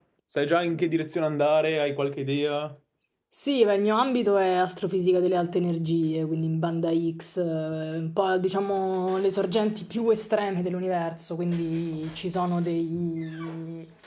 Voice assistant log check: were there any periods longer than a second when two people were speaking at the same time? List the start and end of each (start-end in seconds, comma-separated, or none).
none